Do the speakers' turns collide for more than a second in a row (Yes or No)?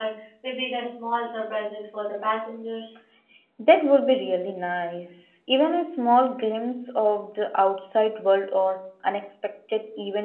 No